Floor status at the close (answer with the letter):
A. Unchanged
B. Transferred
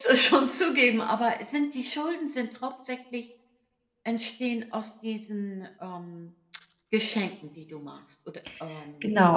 B